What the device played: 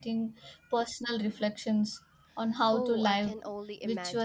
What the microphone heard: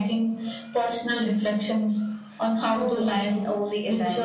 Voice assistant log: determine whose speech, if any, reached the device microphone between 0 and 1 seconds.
echo only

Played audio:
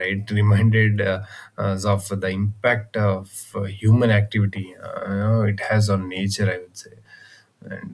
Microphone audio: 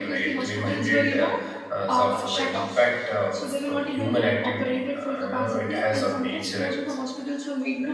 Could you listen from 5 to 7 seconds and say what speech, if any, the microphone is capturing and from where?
both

